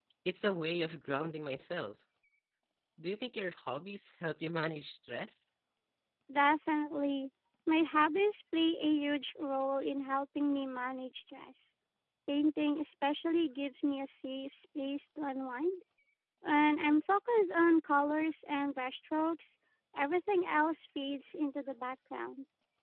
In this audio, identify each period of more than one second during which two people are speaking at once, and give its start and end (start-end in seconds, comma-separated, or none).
none